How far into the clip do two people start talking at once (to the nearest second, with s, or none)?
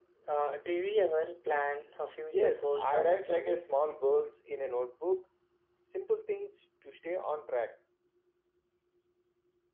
2 s